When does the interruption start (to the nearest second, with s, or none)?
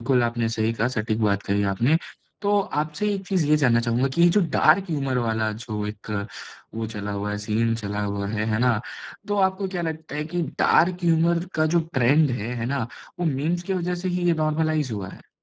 none